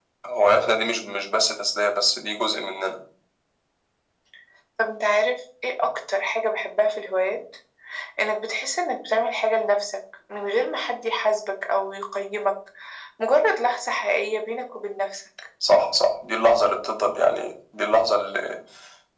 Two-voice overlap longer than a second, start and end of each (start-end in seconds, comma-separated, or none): none